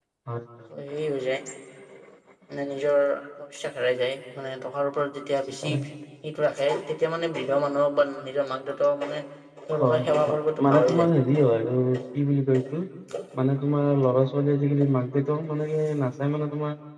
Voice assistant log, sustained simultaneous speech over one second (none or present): present